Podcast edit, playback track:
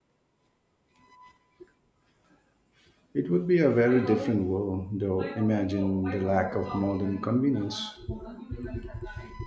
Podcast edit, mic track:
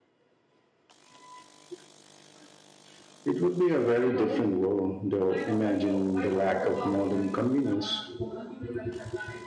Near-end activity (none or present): none